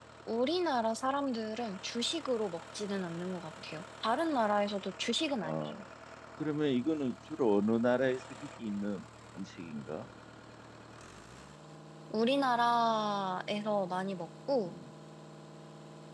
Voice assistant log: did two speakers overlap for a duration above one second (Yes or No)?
No